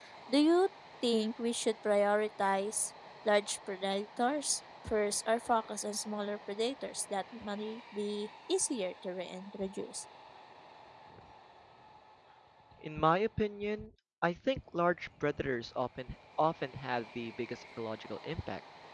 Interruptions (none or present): none